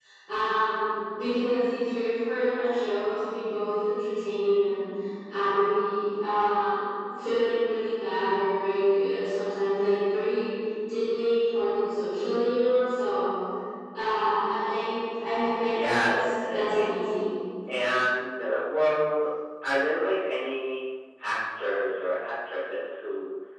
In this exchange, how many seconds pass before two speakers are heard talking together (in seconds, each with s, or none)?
15.7 s